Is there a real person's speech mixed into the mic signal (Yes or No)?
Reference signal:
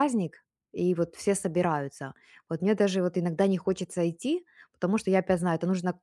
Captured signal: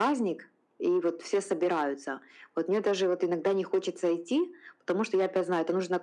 No